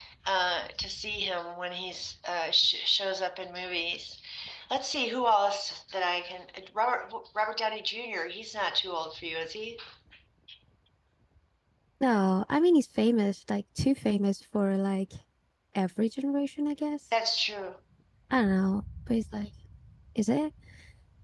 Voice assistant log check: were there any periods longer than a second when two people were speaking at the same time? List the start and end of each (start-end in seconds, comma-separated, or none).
none